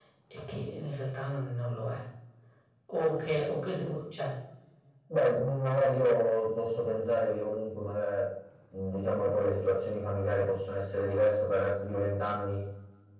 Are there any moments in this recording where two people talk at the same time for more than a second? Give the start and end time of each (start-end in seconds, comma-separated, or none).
none